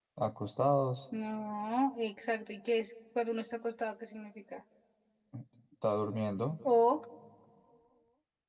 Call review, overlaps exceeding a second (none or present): none